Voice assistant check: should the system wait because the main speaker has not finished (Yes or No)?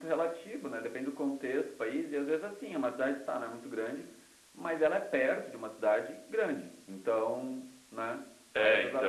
Yes